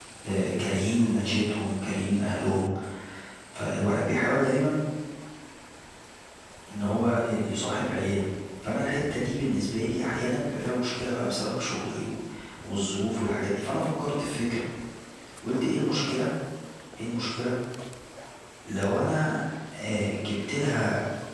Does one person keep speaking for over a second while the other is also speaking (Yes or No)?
No